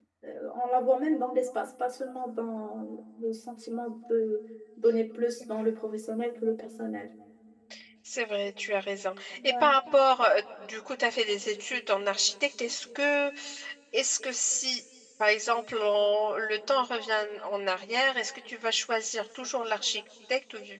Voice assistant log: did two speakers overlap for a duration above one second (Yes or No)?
No